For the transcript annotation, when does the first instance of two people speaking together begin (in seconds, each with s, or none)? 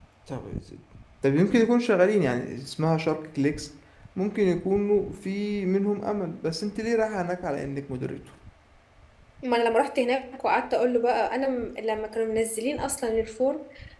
none